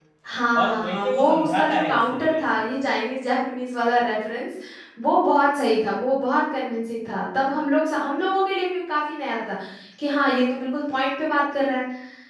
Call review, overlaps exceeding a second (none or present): present